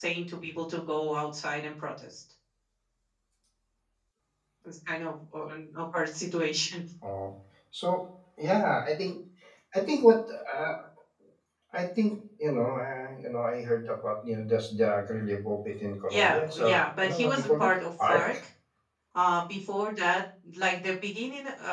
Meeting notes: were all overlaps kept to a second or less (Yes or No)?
No